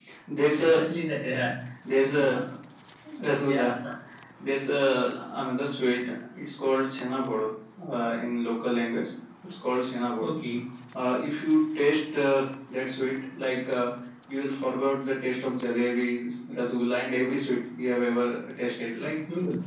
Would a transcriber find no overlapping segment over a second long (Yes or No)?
Yes